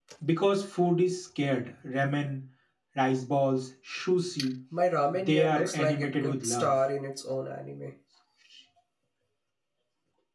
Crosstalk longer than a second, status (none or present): present